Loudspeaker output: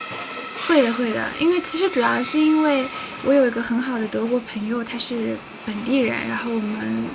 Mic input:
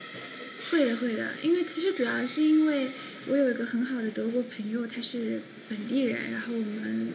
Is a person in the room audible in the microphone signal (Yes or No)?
No